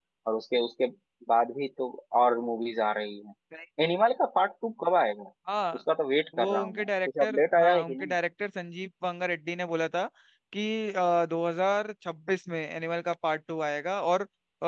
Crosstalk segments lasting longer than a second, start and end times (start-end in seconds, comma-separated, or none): 6.4-8.1